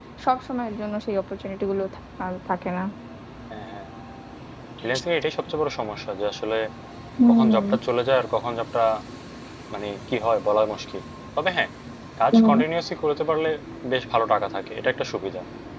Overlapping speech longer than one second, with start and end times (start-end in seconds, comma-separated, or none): none